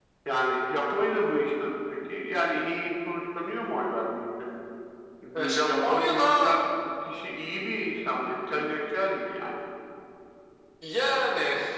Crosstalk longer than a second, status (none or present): present